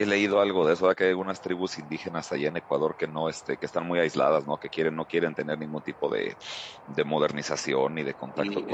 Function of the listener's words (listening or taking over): taking over